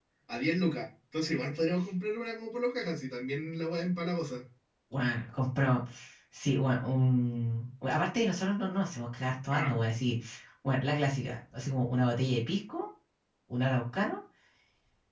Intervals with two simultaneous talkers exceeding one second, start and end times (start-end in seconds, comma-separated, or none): none